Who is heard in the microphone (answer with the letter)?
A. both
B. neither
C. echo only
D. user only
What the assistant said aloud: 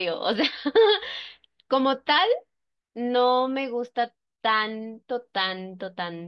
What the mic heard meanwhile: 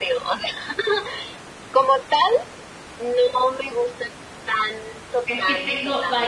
A